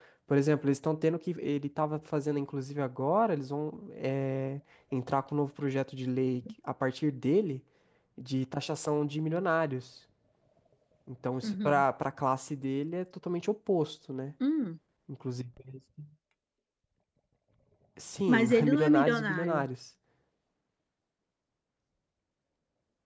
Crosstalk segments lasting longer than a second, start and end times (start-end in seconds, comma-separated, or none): 18.3-19.6